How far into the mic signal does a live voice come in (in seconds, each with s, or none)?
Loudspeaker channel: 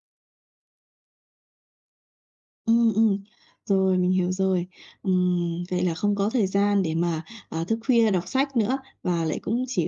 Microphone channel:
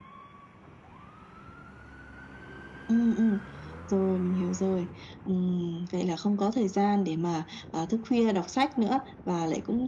none